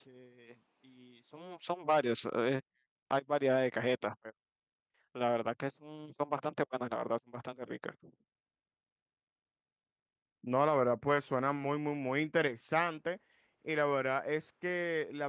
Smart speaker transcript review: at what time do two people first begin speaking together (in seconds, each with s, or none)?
none